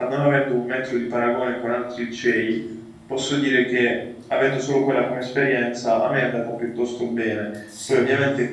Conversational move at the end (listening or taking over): listening